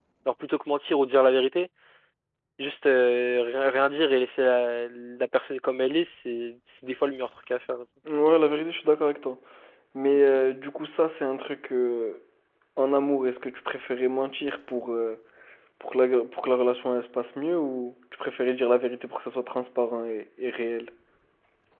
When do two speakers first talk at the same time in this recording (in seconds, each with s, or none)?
none